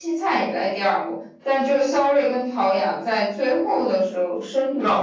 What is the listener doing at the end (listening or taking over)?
taking over